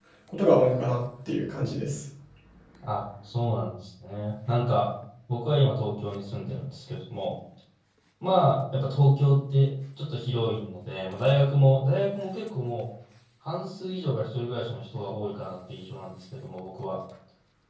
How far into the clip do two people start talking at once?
none

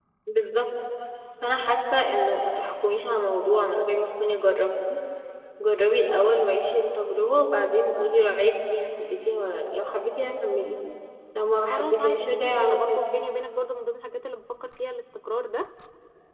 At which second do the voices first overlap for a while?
12 s

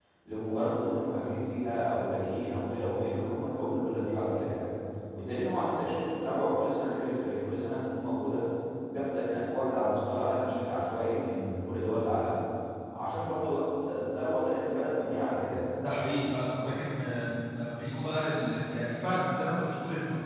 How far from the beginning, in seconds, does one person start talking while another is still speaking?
none

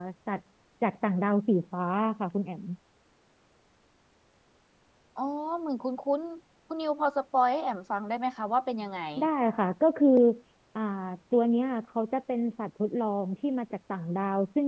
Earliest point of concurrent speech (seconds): none

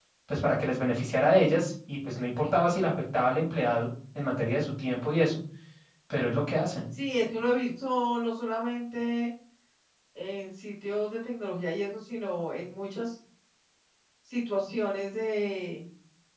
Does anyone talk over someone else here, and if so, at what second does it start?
none

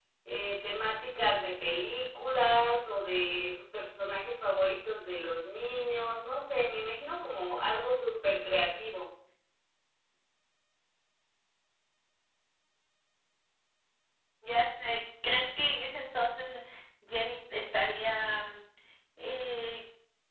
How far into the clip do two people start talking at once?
none

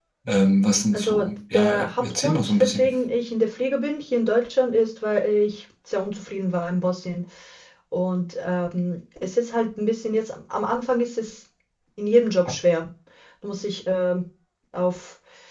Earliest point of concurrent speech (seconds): 1 s

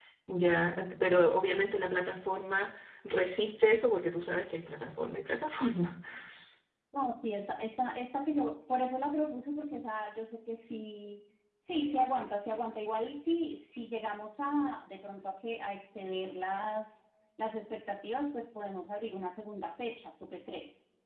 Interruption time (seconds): none

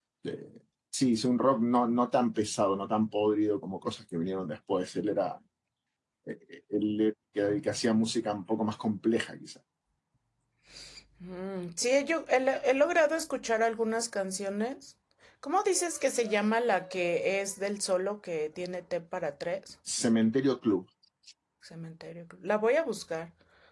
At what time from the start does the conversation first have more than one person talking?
none

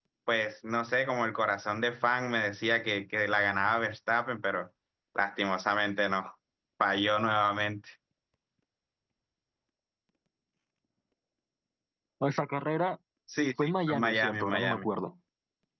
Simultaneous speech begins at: 14 s

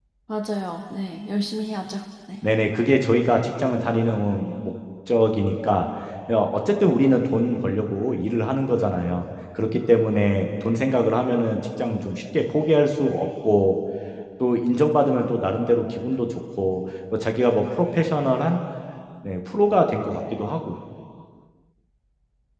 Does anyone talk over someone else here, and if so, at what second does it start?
none

